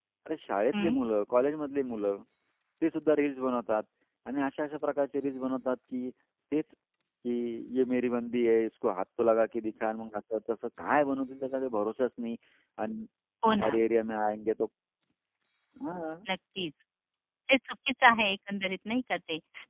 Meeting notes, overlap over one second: none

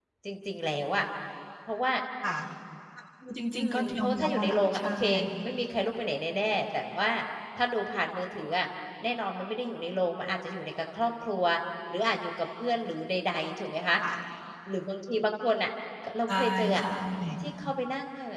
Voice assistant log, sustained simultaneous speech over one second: present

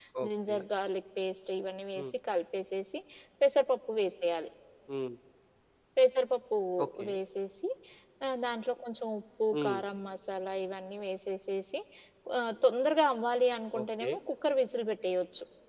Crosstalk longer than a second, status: none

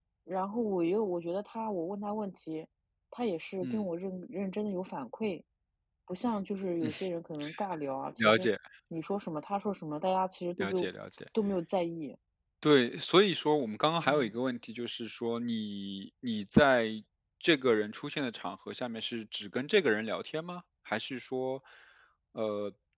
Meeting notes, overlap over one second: none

